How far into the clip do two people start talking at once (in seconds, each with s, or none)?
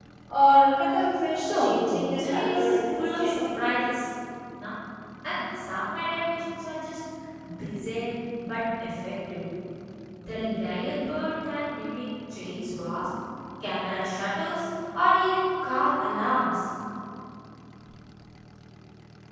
1.4 s